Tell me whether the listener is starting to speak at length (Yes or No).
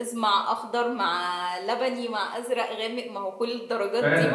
Yes